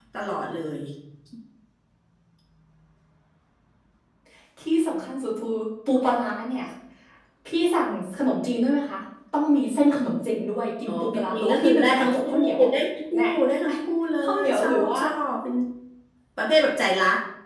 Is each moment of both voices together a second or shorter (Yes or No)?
No